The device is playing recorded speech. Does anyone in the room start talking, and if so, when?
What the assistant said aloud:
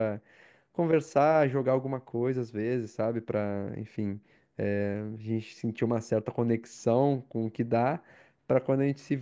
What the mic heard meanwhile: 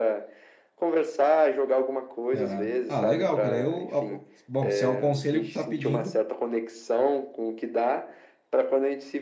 2.4 s

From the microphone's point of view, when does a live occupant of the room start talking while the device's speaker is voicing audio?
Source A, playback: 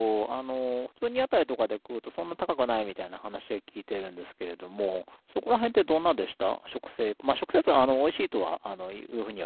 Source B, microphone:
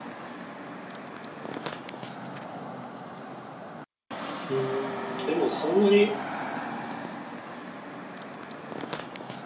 4.5 s

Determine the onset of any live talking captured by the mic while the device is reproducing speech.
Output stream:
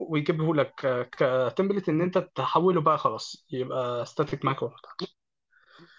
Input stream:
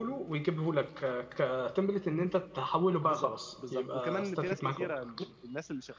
3.0 s

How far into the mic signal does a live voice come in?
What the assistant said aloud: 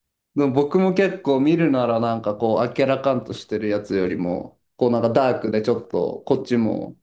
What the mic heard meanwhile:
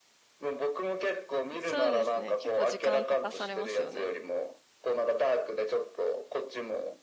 1.6 s

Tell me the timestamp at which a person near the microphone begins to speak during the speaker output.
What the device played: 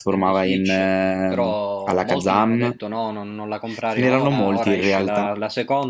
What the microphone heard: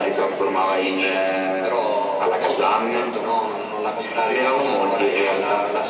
none

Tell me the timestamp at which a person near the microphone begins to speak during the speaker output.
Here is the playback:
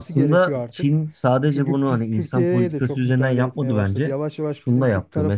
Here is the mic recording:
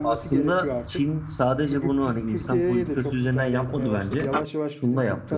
none

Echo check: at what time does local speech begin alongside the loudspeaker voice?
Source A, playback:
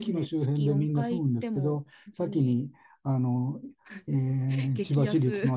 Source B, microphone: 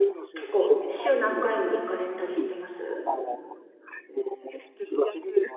0.3 s

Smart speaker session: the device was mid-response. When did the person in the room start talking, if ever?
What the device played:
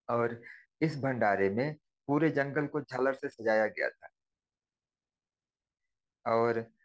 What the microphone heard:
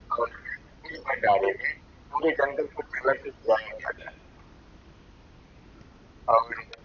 none

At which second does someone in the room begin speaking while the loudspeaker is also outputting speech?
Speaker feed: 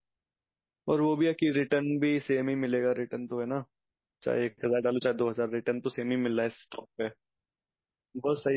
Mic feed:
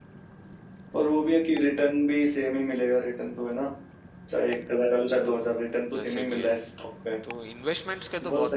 5.2 s

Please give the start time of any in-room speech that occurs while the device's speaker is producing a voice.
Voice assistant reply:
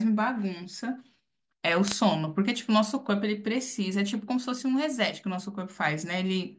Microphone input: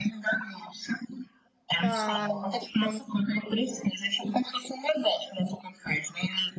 1.8 s

